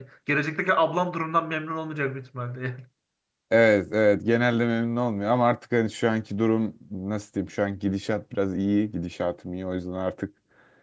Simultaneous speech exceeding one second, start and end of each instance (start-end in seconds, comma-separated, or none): none